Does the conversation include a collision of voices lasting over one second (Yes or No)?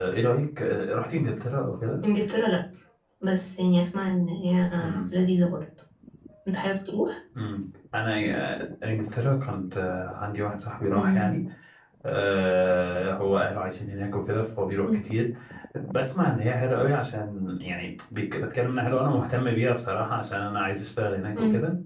No